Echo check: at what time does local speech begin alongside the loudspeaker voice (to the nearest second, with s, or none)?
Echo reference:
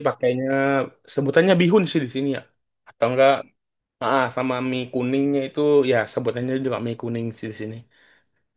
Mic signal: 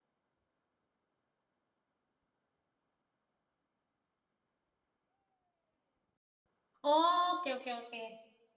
7 s